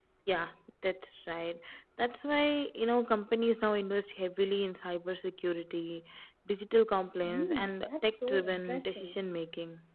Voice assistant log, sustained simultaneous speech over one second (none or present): present